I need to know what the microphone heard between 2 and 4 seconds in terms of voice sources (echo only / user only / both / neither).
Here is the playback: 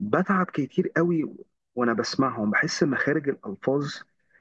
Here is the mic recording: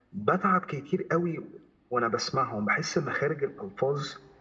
echo only